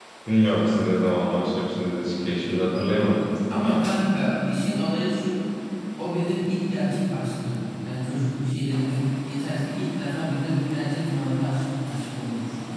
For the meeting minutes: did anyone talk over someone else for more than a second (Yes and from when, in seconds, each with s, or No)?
No